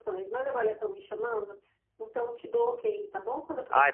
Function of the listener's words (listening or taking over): taking over